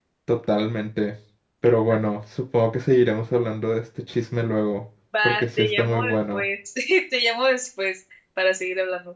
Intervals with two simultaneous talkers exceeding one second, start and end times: 5.2-6.4

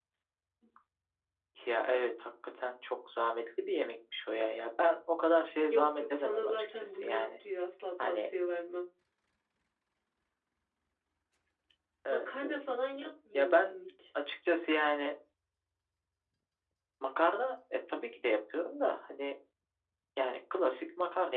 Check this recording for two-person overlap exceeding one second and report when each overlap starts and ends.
5.7-7.3

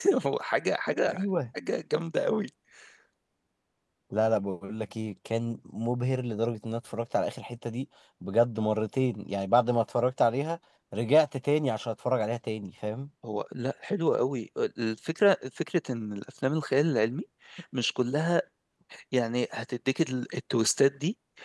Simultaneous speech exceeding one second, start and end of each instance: none

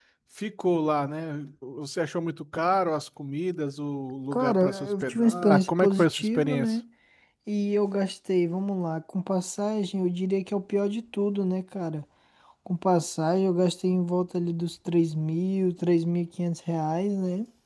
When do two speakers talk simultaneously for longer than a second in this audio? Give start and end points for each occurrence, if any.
4.3-6.8

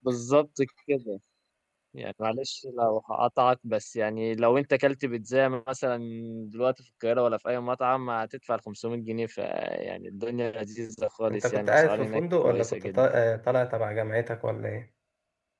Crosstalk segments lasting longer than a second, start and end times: 11.3-13.0

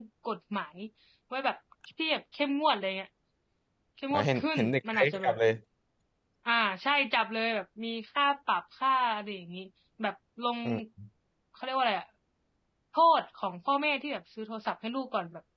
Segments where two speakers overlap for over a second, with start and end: 4.1-5.4

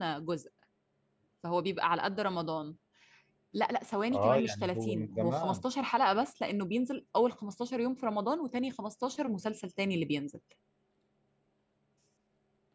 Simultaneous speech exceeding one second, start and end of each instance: 4.1-5.6

